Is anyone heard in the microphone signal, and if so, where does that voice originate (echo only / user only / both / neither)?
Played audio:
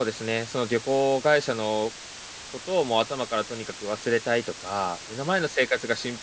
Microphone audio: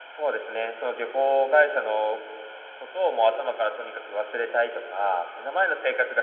echo only